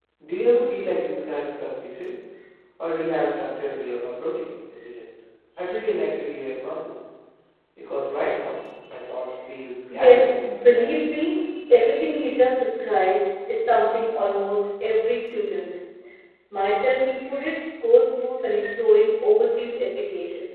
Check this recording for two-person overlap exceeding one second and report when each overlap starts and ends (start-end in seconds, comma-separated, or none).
9.9-11.1